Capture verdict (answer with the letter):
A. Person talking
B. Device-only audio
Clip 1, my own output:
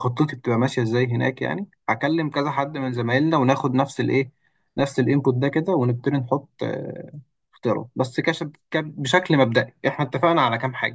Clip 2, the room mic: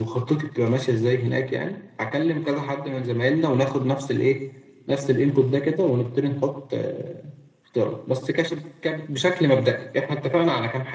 B